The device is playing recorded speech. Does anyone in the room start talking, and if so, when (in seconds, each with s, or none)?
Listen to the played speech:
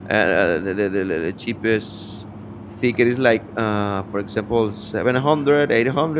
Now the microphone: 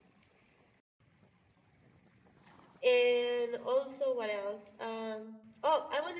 2.8 s